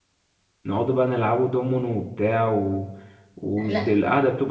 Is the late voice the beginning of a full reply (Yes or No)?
No